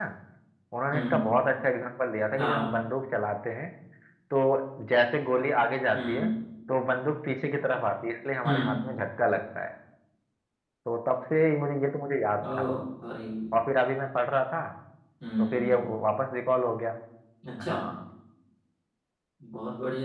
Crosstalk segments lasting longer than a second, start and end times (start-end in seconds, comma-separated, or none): none